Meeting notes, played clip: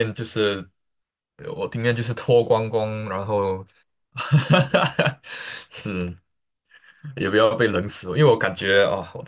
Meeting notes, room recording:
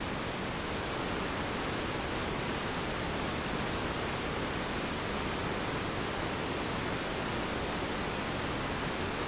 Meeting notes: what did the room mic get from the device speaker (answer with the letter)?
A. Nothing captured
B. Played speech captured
A